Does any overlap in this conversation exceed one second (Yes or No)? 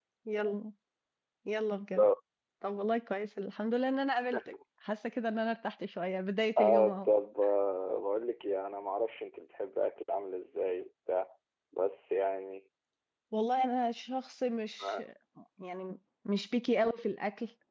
No